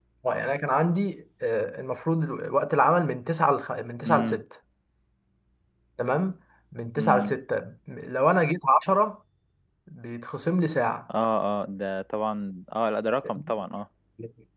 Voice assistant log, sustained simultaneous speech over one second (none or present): none